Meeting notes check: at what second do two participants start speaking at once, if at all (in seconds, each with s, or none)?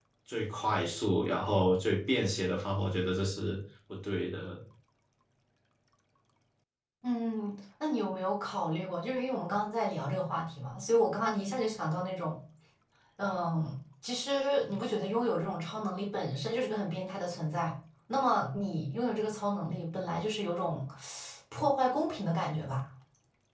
none